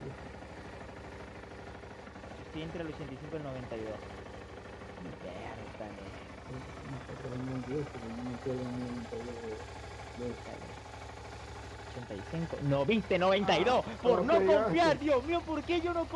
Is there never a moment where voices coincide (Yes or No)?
No